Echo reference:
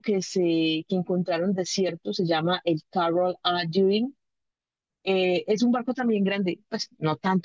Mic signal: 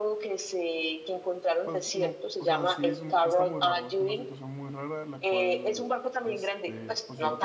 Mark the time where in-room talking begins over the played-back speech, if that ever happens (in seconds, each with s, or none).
1.6 s